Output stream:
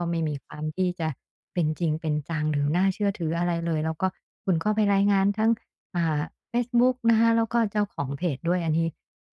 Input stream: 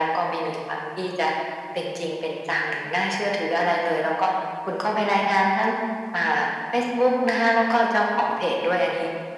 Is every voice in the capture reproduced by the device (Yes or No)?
Yes